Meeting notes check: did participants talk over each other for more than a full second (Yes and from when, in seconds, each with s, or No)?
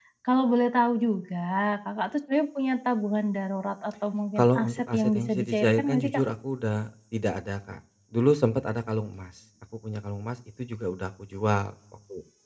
Yes, from 4.4 s